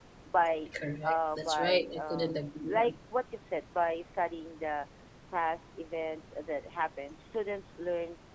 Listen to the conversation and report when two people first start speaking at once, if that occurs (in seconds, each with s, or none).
1.1 s